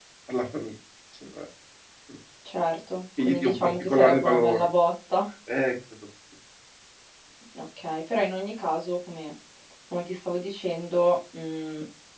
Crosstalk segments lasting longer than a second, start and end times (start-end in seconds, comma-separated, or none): 3.2-4.7